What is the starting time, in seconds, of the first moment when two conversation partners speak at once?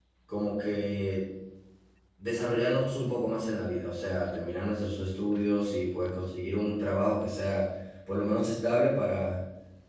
none

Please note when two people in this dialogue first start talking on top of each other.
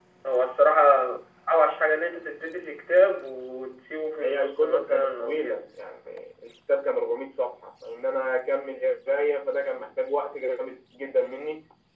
4 s

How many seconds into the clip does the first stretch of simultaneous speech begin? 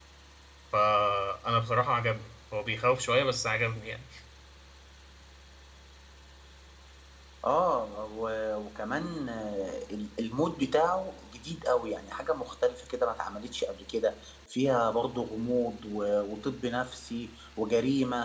none

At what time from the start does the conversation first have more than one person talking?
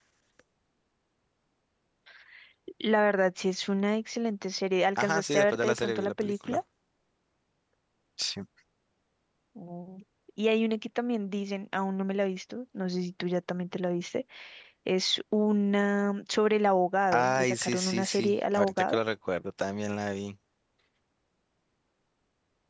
5 s

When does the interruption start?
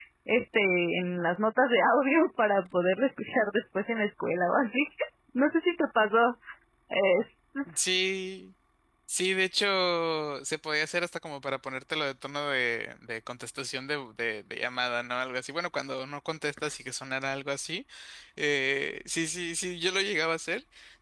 none

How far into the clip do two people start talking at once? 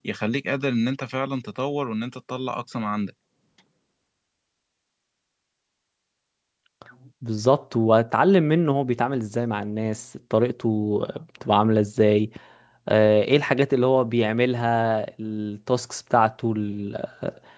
none

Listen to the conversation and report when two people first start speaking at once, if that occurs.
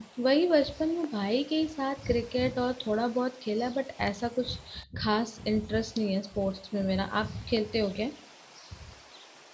none

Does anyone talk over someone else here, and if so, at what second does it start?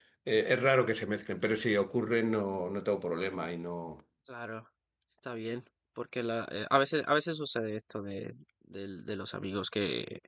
none

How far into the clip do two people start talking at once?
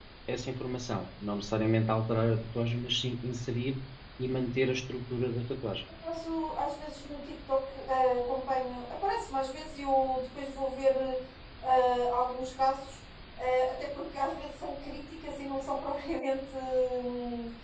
none

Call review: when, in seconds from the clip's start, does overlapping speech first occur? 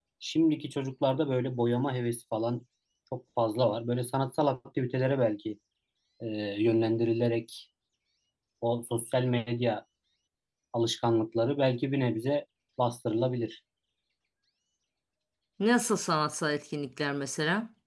none

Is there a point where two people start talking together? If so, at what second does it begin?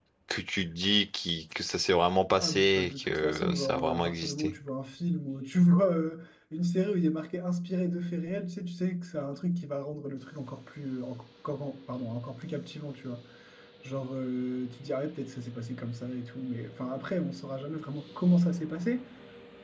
2 s

